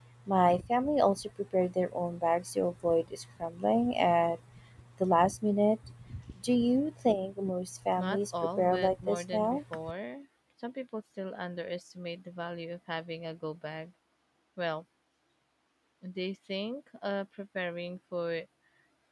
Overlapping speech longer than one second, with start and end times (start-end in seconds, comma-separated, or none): 8.0-9.6